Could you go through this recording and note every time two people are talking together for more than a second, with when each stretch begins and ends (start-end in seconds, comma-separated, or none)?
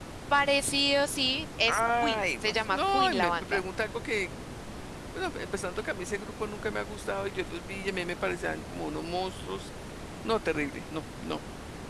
1.7-3.6